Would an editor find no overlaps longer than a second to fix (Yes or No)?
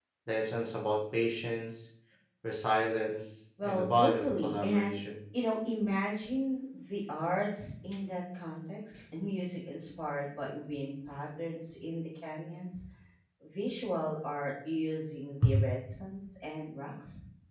No